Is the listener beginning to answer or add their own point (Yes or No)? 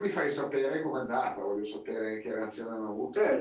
Yes